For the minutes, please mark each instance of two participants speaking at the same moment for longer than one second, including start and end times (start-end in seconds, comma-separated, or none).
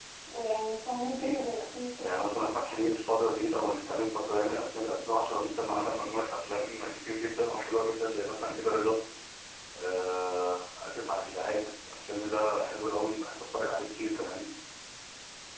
none